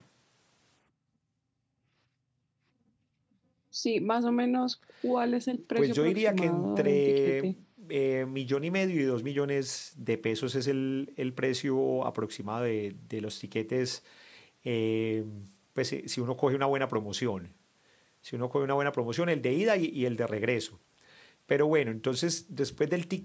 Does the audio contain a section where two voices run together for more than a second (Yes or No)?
Yes